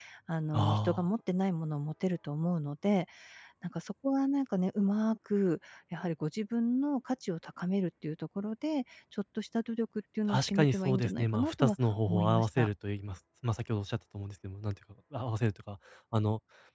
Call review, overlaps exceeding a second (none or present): present